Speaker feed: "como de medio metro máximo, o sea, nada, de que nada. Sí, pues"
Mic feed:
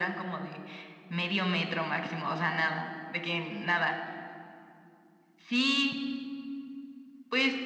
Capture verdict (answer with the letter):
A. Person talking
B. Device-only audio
B